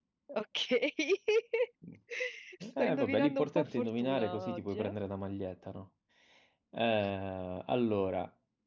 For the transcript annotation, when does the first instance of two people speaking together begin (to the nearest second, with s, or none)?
3 s